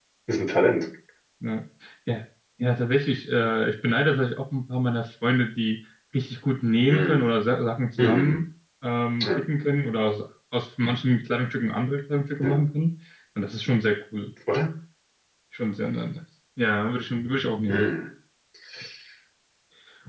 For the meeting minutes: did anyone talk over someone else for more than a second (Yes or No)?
No